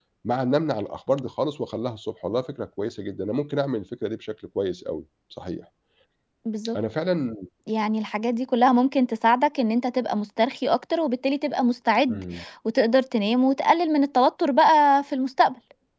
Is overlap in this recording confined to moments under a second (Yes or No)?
Yes